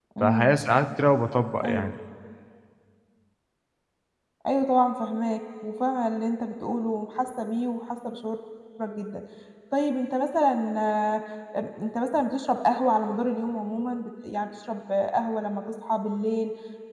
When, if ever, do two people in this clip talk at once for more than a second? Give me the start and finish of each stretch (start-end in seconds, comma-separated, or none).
none